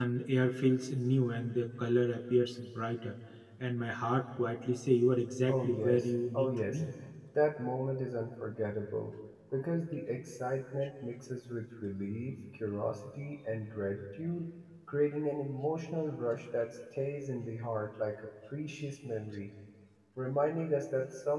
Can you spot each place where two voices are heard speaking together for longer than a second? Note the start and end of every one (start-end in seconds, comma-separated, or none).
5.5-6.8